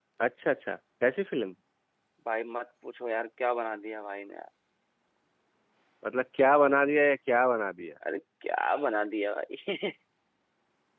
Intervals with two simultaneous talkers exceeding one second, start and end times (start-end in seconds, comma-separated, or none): none